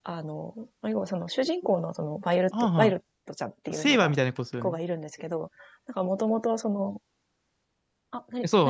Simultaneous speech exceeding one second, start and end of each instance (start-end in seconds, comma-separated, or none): none